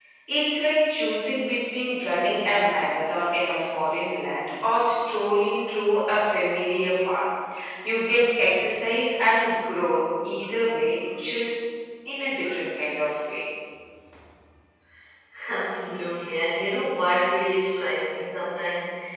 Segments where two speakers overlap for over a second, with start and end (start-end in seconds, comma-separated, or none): none